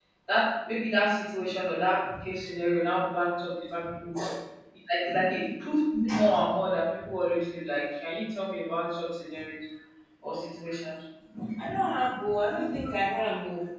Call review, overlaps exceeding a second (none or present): none